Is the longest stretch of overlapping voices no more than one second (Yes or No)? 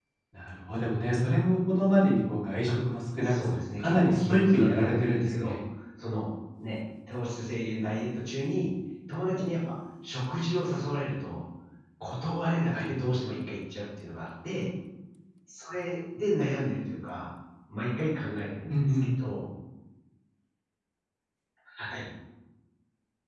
No